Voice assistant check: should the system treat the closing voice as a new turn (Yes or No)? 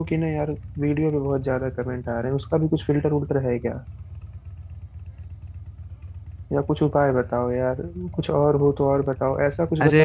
Yes